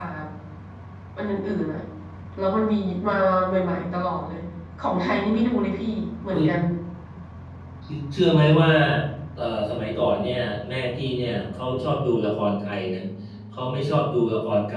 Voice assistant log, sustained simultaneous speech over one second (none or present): none